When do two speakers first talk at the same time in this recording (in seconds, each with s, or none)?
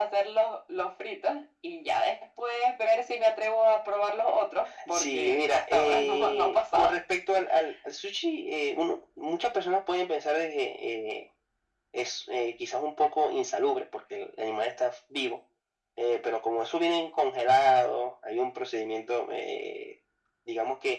4.9 s